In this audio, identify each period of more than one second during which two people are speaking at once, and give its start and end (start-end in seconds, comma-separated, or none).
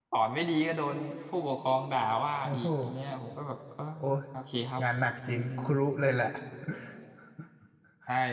none